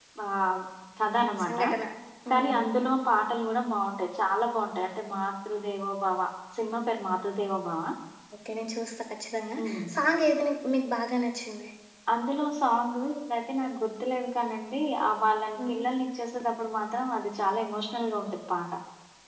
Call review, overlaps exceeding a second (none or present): none